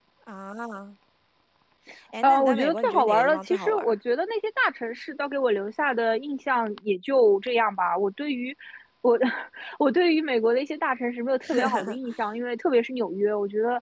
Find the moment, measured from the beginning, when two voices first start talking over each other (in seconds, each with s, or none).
2.2 s